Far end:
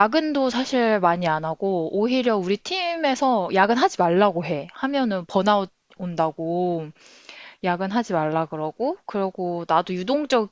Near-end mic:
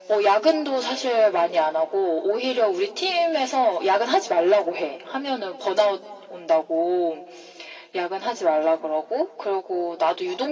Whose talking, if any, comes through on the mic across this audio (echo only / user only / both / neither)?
echo only